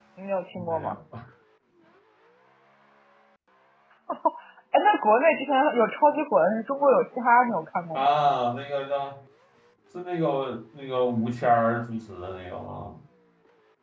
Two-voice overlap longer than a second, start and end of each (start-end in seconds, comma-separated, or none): none